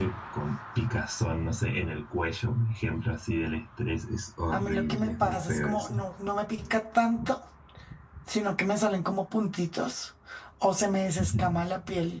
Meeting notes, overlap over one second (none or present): present